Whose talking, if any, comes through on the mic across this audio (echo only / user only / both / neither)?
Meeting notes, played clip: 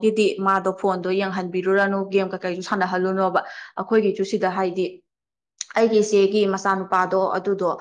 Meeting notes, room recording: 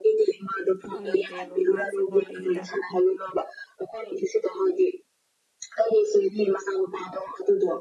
both